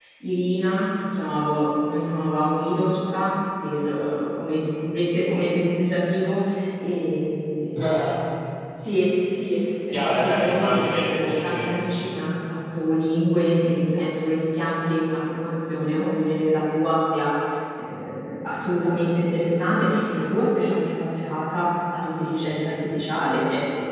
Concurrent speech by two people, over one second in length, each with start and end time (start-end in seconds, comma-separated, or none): 9.9-12.1